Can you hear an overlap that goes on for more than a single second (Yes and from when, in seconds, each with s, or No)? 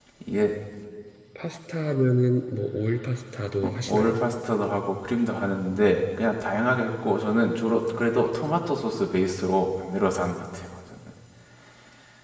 No